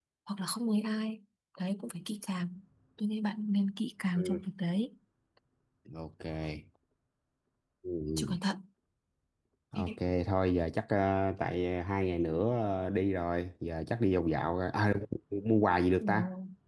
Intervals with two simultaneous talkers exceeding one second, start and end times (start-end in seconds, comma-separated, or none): none